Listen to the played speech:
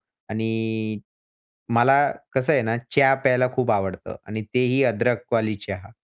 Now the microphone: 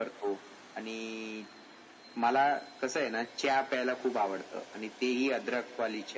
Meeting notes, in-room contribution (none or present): none